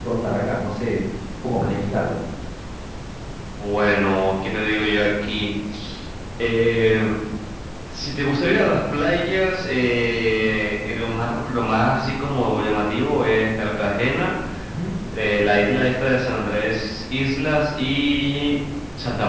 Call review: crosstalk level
none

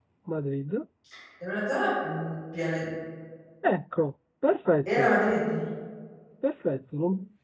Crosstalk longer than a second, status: none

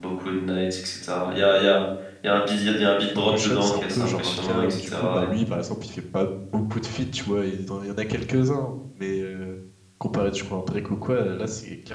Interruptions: present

